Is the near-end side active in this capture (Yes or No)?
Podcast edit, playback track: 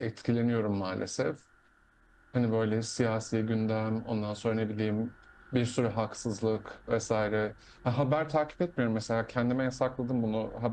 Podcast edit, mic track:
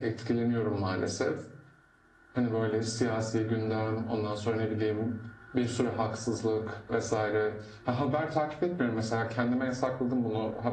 No